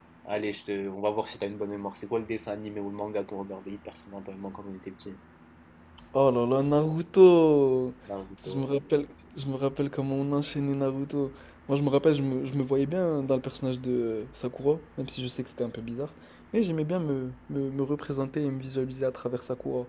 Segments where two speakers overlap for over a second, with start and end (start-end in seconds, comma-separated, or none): none